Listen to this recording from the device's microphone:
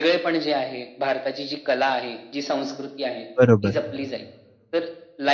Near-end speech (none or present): present